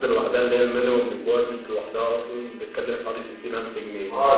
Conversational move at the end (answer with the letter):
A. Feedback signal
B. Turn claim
B